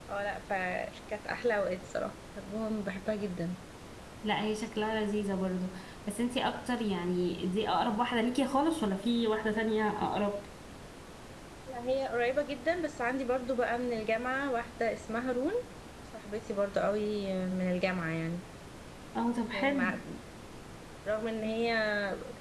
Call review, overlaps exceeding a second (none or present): none